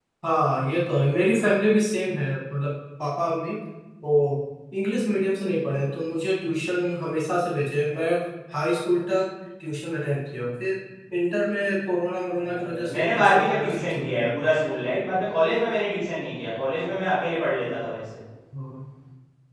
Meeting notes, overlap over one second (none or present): present